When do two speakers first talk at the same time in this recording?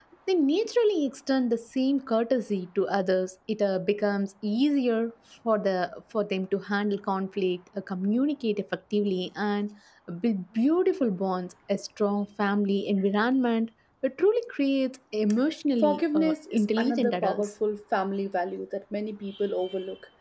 16 s

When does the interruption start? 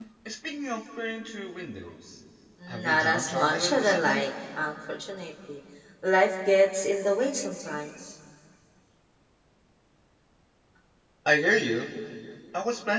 3 s

